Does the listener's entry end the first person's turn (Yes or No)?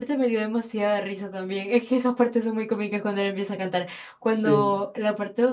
No